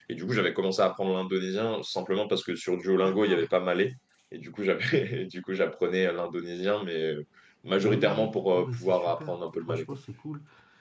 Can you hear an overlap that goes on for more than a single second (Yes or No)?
Yes